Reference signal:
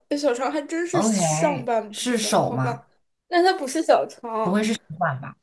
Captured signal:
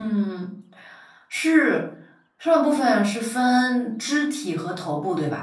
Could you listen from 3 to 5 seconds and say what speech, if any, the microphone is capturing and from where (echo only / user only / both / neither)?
user only